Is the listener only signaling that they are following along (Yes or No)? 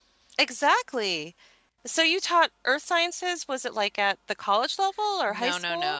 No